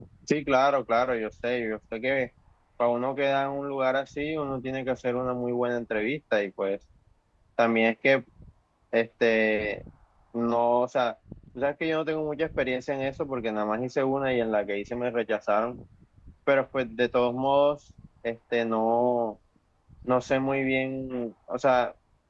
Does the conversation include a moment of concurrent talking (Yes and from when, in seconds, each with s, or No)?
No